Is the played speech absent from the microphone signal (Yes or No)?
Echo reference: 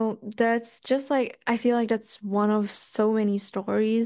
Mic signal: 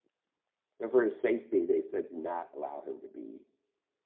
Yes